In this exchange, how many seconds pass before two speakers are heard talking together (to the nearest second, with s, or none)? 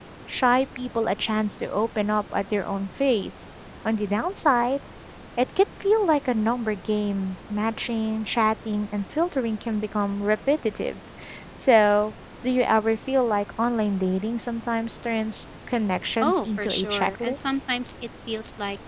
16 s